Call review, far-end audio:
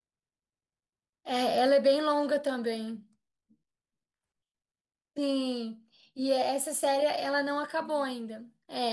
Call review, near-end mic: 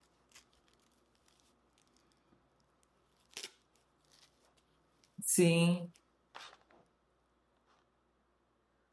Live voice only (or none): Sim.